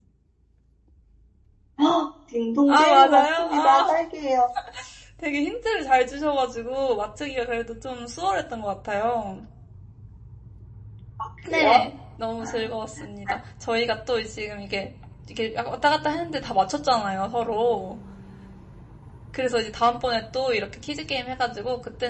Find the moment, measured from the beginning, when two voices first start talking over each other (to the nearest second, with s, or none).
3 s